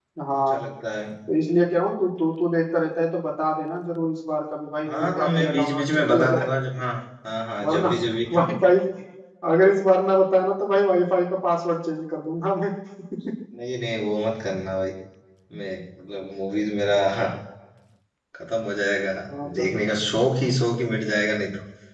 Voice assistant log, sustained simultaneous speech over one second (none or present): present